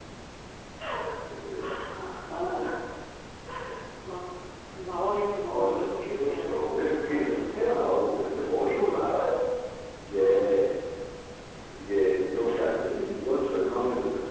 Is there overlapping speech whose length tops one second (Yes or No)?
Yes